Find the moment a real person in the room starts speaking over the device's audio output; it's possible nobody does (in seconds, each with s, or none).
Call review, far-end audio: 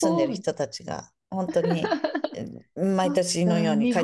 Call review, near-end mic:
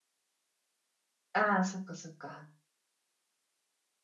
1.3 s